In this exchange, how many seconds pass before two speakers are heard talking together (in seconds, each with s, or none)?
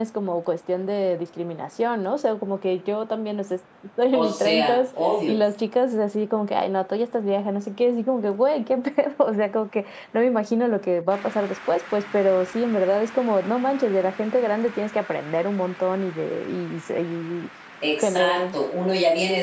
4.1 s